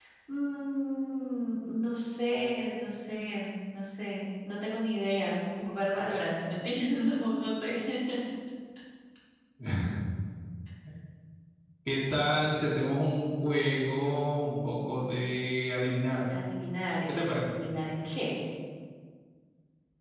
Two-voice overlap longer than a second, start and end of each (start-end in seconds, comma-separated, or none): none